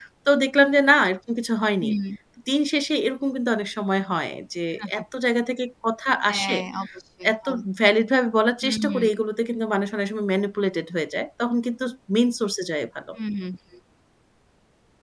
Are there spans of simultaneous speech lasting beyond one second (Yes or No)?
No